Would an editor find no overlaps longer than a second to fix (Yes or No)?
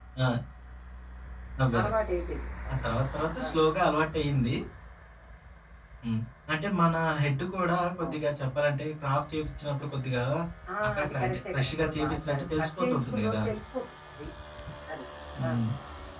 No